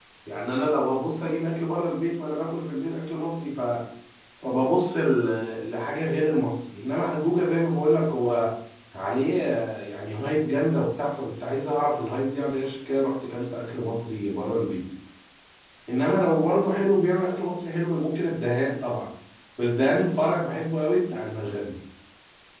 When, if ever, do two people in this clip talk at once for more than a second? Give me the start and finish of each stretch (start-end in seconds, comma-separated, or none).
none